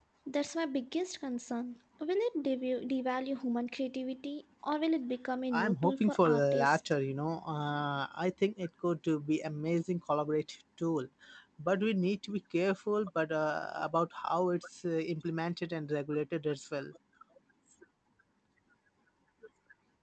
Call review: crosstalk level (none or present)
present